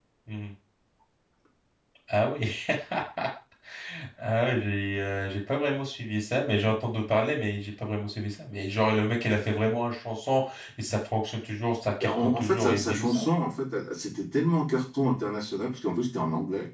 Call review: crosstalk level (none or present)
present